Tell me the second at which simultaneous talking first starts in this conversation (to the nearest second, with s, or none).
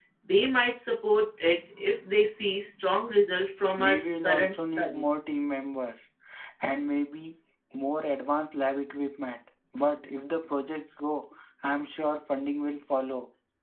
4 s